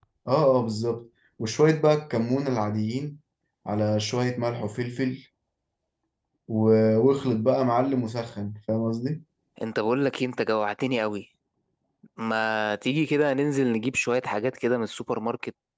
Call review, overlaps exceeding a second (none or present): none